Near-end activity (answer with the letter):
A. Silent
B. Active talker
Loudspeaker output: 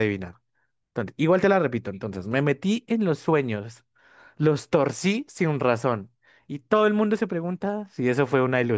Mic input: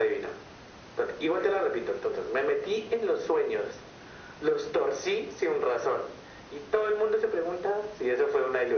A